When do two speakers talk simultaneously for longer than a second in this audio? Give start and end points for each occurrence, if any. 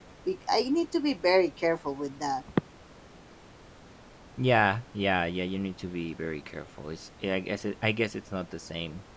none

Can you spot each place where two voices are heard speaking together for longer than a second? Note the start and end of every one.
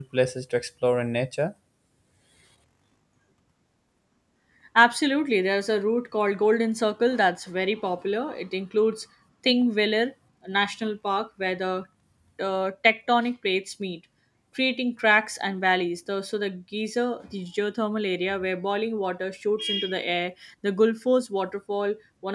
none

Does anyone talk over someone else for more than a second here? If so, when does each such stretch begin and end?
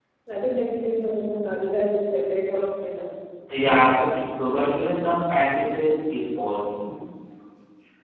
none

